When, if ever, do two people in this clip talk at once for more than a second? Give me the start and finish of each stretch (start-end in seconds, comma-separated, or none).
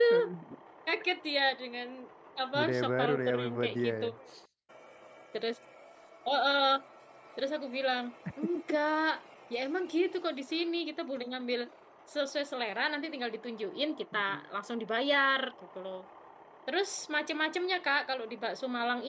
2.6-4.0